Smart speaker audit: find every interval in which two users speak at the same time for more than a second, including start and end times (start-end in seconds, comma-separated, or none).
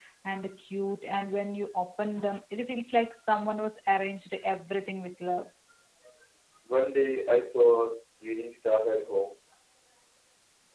none